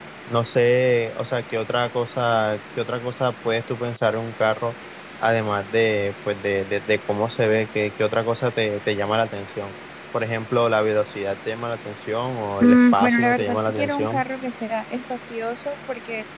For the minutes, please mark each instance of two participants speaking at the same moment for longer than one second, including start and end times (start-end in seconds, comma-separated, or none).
12.6-14.2